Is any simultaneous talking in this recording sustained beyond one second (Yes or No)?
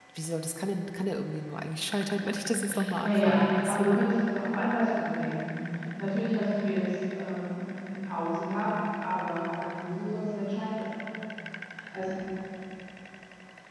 Yes